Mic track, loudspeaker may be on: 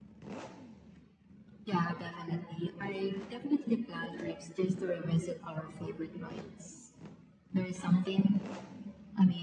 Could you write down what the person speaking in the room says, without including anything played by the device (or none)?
none